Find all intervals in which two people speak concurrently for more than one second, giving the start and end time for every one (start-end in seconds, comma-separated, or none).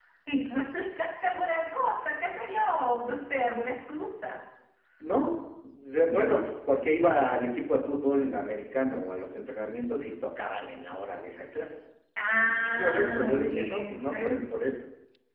12.4-14.4